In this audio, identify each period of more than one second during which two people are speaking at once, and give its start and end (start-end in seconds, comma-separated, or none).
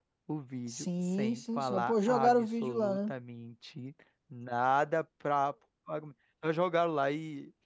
0.7-3.1